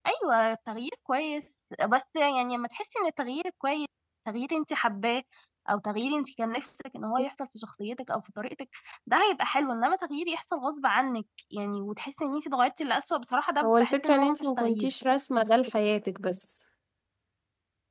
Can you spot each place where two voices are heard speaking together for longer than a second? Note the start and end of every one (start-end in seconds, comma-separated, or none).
13.6-14.9